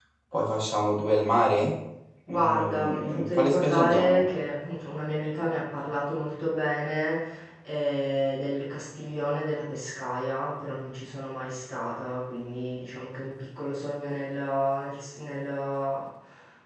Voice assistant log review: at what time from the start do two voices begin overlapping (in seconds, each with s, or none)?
2.3 s